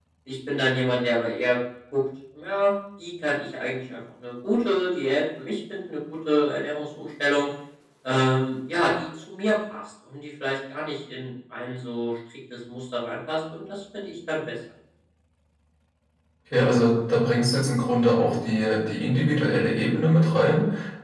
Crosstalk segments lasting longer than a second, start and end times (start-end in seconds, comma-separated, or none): none